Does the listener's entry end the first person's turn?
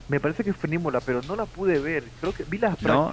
No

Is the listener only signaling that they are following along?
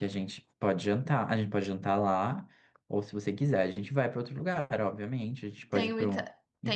No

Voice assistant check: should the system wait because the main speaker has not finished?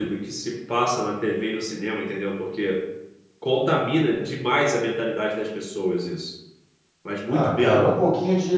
No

